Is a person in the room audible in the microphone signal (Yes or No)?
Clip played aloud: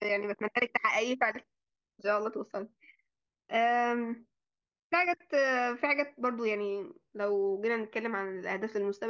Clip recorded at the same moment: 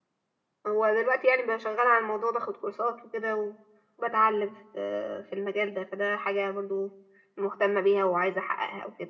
Yes